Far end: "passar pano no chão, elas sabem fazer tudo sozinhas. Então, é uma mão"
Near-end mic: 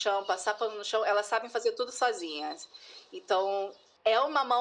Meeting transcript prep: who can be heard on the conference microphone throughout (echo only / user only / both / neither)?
echo only